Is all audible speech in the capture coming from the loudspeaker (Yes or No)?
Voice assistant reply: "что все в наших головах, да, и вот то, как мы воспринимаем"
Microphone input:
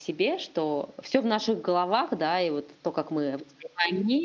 Yes